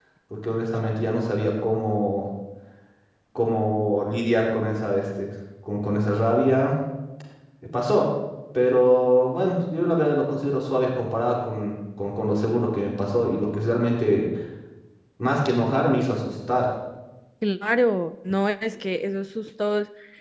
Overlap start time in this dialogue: none

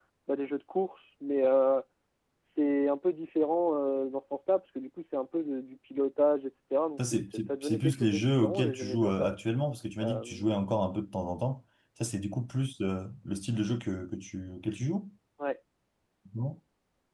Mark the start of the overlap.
7 s

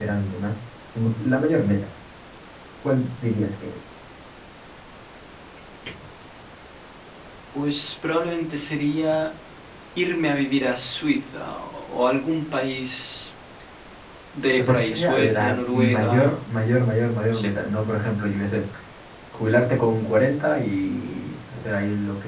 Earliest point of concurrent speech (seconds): 15 s

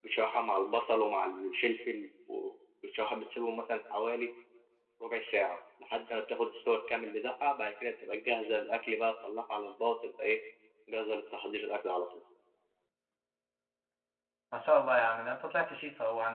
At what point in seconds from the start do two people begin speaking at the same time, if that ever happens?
none

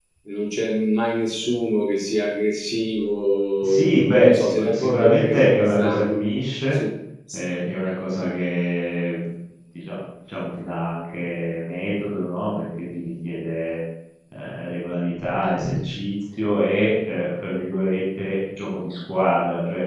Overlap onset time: 4 s

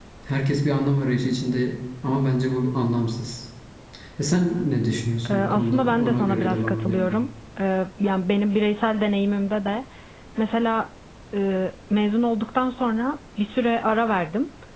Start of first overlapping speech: 5 s

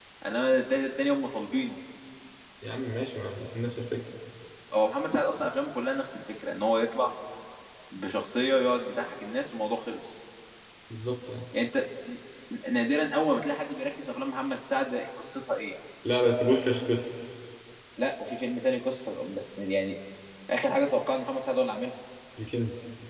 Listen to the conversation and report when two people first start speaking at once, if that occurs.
none

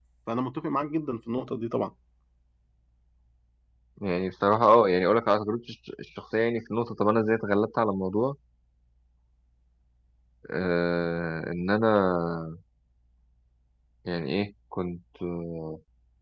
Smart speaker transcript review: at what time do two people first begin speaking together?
none

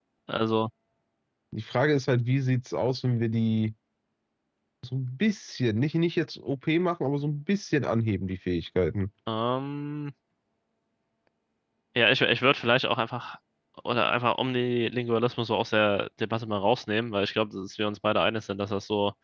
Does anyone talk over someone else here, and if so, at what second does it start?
none

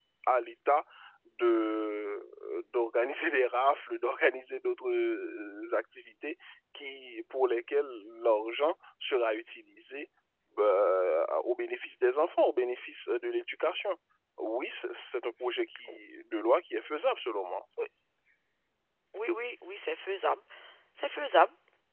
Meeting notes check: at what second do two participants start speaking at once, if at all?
none

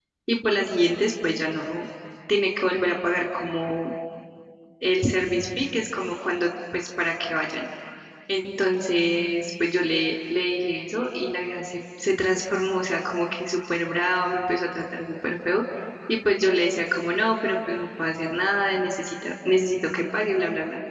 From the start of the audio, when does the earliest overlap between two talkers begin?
none

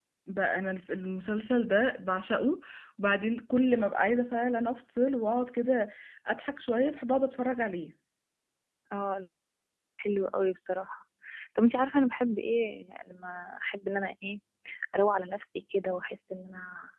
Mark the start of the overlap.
none

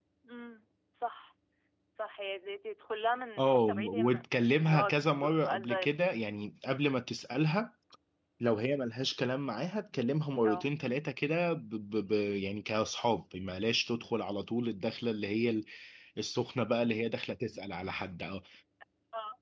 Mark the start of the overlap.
3 s

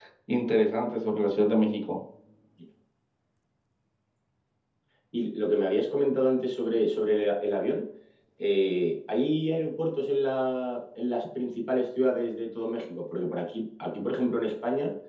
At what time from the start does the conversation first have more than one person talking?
none

